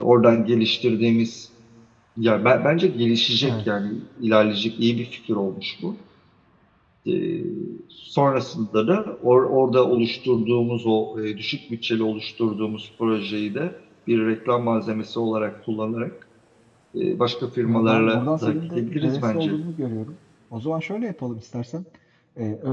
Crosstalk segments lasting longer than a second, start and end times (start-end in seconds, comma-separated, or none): 17.6-19.6